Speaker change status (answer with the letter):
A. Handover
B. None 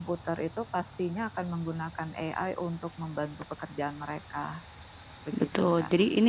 A